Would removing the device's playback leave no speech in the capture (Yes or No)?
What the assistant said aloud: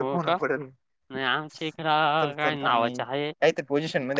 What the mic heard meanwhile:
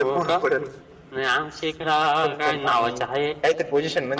Yes